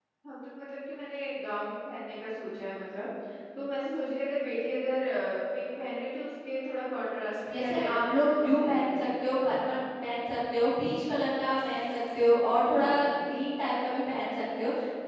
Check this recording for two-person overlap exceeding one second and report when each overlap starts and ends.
7.5-9.0

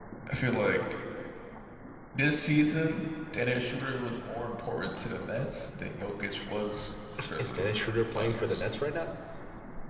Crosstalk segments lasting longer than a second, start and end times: 7.4-8.6

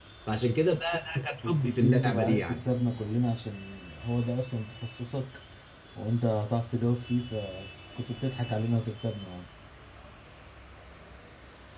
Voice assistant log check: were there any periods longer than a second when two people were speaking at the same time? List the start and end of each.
1.4-2.6

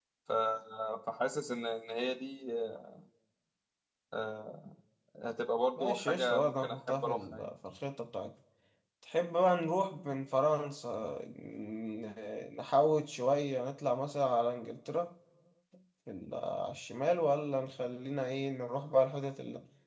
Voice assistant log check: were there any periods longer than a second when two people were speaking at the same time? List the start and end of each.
5.8-7.5

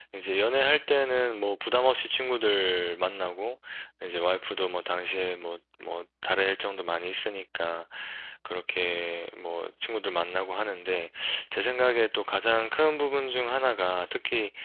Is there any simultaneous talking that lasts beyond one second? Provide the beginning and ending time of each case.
none

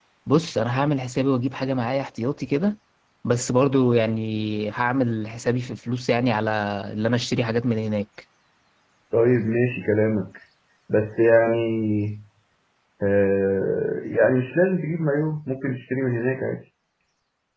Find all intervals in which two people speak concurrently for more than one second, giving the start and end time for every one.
none

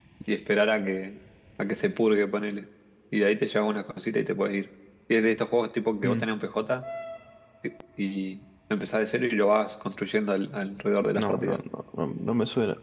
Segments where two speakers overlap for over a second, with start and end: none

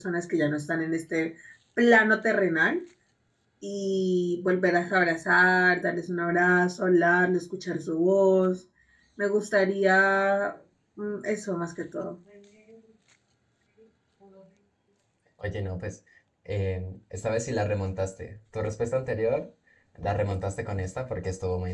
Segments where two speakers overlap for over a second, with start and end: none

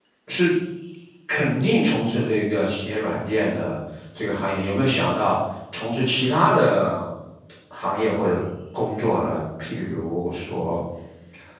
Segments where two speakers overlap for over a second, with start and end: none

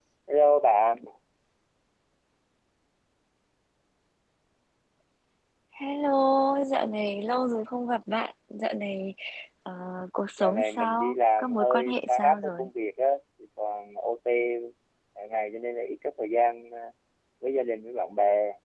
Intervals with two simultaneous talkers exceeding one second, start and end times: 10.4-12.7

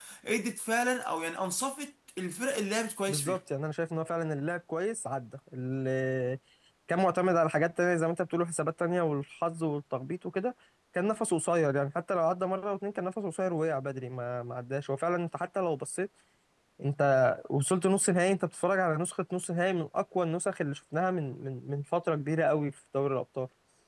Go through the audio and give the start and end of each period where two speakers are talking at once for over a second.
none

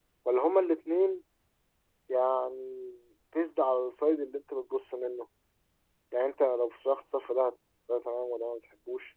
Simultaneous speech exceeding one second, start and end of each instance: none

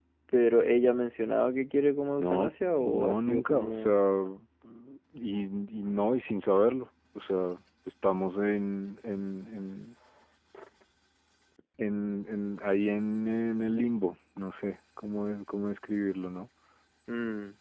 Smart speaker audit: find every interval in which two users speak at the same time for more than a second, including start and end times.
2.2-3.9

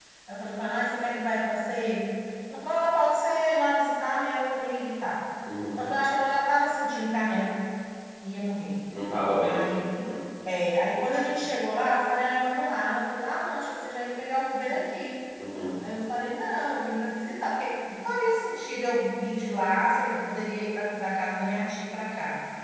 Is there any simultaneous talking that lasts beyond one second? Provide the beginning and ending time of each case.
none

